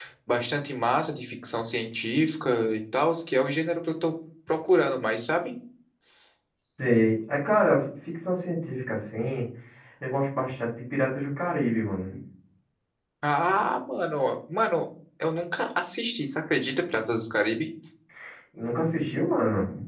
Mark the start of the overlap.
none

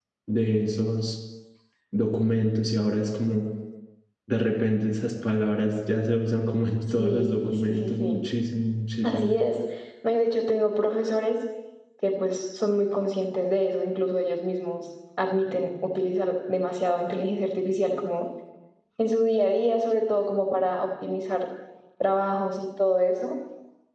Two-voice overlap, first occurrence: 7.0 s

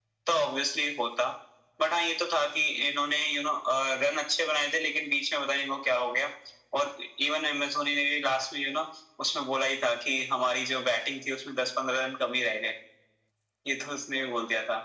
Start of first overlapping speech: none

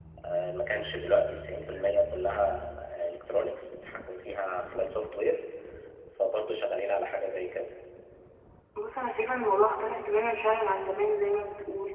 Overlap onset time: none

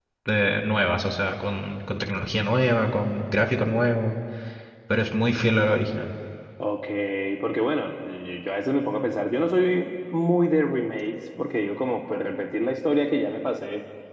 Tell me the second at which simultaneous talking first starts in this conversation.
none

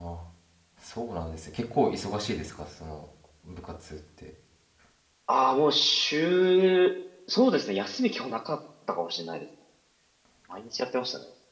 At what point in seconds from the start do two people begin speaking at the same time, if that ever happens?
none

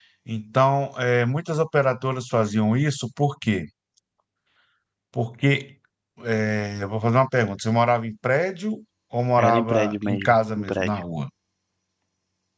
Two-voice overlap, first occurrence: 9.4 s

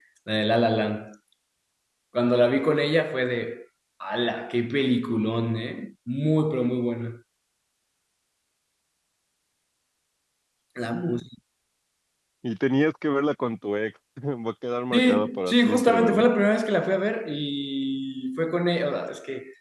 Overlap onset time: 14.9 s

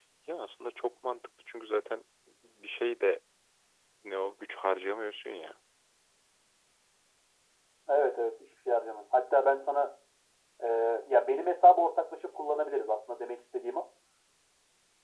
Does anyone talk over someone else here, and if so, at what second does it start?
none

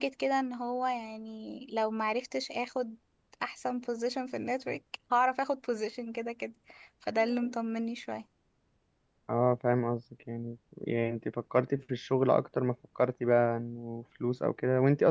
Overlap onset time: none

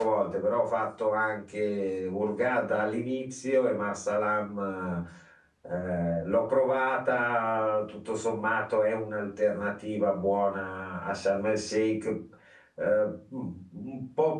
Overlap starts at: none

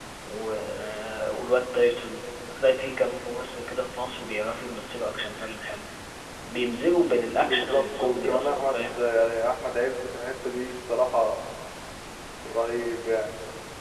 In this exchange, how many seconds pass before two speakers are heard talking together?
7.3 s

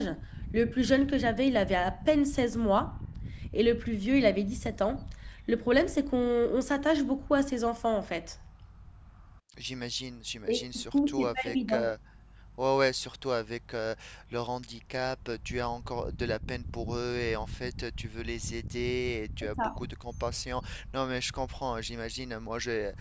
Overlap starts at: 10.5 s

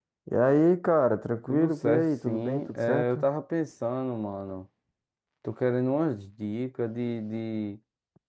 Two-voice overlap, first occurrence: 1.5 s

